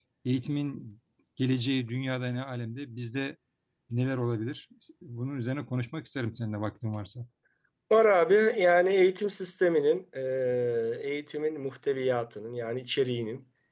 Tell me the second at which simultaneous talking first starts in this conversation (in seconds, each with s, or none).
none